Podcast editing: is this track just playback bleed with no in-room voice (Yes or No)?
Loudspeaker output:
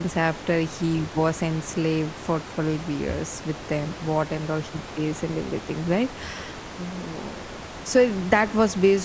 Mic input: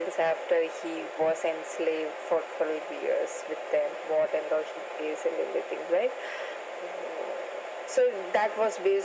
Yes